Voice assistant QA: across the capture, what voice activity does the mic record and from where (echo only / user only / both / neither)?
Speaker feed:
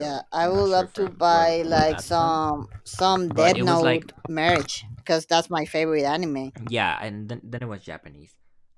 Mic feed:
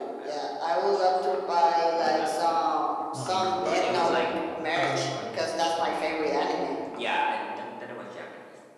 both